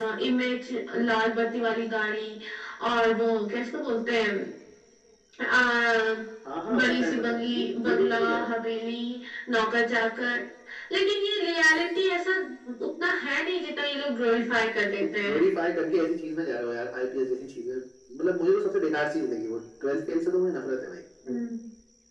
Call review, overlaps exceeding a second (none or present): present